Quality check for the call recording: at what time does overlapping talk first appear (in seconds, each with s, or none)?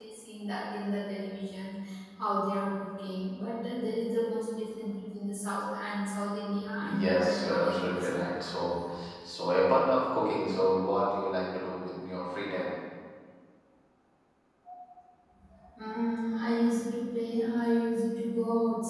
6.8 s